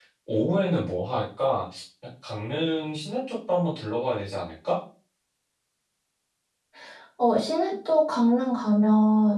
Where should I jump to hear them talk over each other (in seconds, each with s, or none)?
none